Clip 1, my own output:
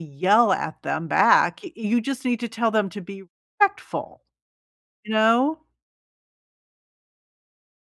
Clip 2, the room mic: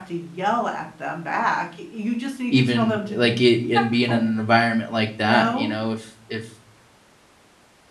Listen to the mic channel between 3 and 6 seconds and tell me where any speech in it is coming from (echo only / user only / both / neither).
both